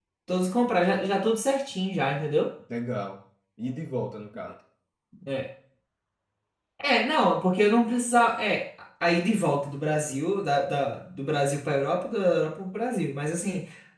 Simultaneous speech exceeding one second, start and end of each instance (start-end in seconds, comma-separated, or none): none